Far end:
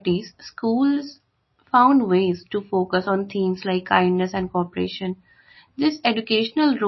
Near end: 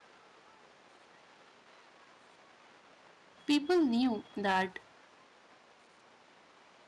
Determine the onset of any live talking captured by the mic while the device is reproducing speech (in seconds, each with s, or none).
3.5 s